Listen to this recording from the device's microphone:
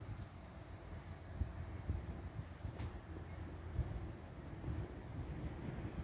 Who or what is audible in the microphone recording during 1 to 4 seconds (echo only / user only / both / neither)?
neither